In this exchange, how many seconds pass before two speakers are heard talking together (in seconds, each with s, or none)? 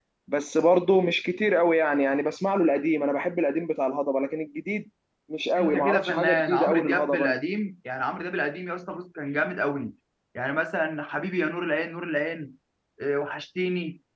5.6 s